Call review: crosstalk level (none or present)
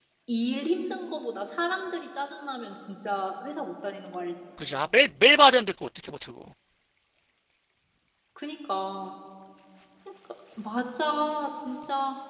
none